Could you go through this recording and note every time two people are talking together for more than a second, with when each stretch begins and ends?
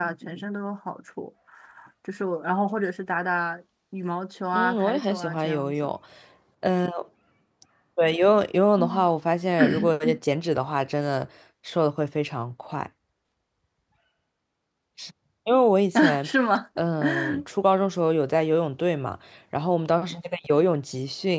4.5-5.7

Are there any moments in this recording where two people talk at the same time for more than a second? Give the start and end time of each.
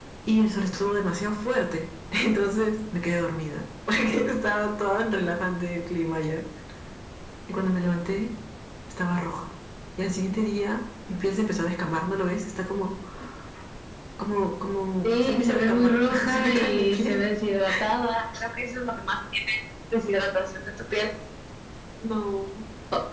15.0-17.2

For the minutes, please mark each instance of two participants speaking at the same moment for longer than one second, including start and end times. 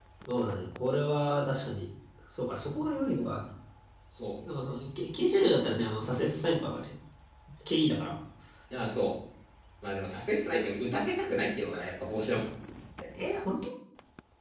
none

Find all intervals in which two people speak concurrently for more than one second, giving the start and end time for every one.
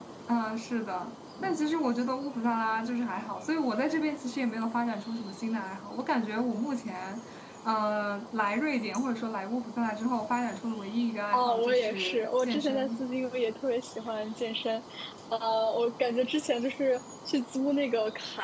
11.3-13.0

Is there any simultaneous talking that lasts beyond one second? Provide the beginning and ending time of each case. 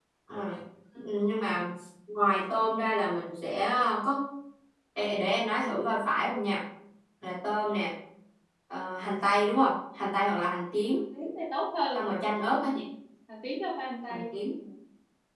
none

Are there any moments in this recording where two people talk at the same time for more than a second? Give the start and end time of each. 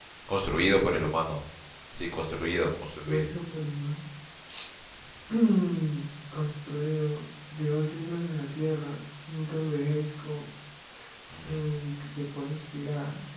none

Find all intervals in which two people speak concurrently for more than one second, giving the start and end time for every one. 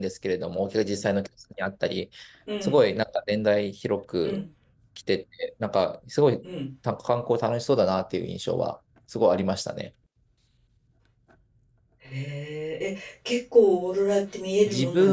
none

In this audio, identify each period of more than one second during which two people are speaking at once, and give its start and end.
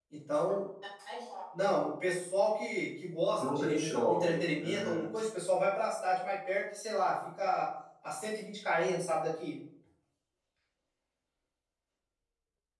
3.4-5.1

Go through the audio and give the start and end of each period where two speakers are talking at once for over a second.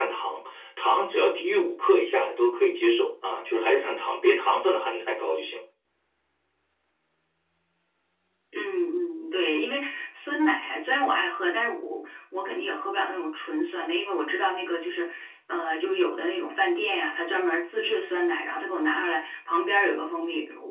none

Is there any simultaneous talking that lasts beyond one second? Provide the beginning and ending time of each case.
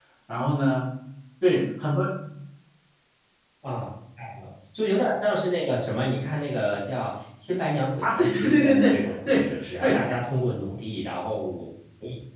8.0-10.0

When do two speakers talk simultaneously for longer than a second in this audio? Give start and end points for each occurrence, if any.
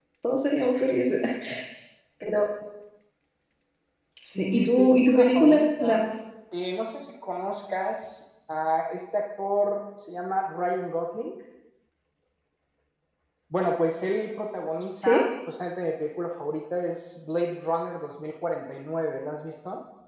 4.3-6.1

